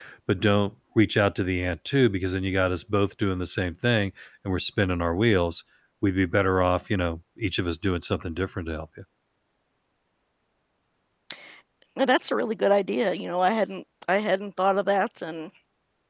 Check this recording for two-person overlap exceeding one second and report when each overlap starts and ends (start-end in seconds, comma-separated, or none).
none